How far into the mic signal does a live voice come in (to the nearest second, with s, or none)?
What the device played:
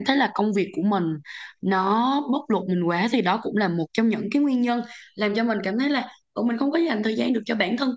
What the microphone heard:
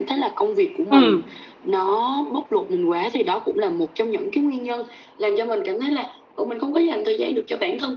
1 s